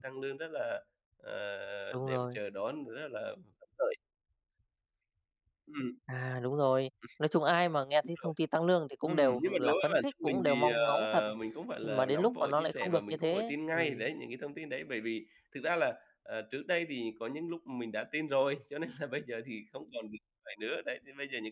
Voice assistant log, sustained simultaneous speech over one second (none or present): present